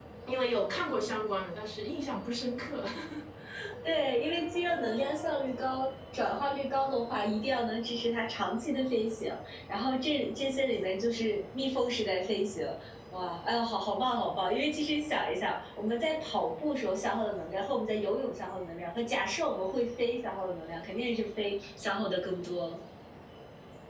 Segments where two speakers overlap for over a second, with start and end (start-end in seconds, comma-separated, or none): none